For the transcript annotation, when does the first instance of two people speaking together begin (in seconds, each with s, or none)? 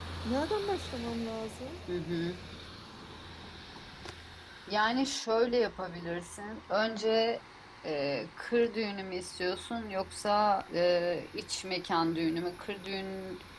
none